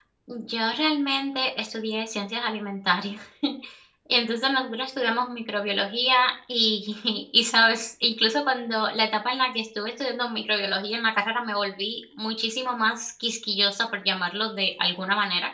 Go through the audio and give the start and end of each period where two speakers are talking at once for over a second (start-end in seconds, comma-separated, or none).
none